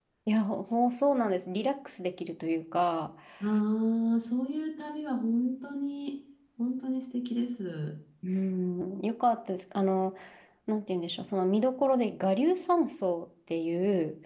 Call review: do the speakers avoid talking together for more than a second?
Yes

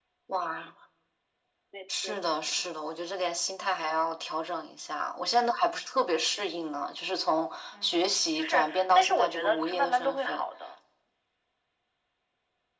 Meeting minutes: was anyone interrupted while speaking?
Yes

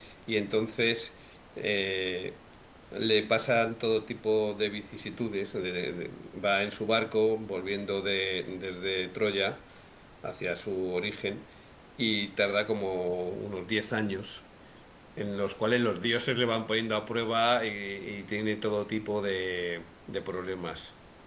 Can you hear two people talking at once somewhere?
No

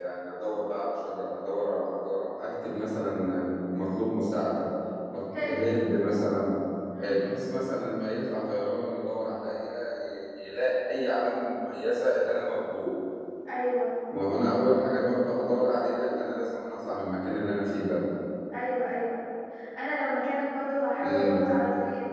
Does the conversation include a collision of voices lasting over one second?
No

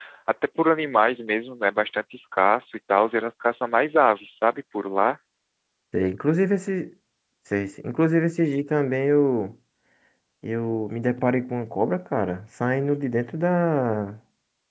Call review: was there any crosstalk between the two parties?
No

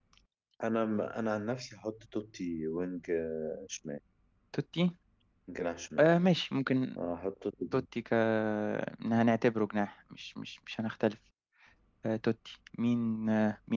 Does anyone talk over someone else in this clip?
No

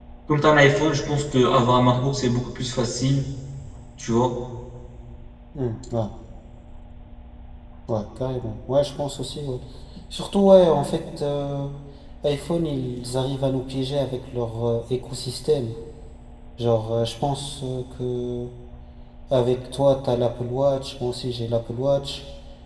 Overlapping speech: No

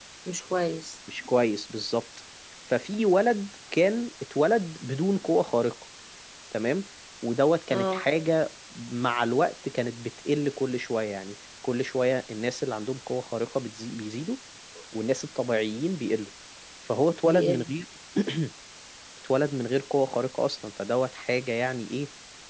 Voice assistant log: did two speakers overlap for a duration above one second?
No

